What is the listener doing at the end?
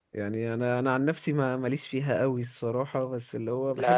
taking over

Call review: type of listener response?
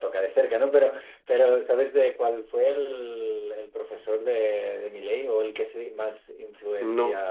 listening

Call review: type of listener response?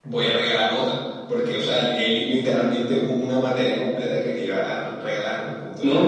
taking over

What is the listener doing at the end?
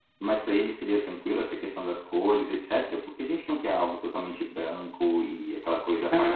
taking over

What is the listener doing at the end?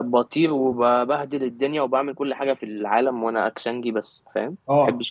taking over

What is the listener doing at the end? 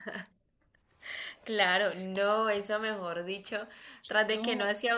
listening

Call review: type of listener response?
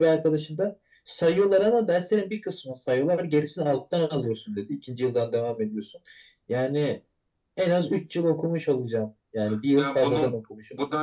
taking over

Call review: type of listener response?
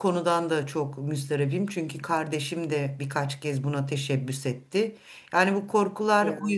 listening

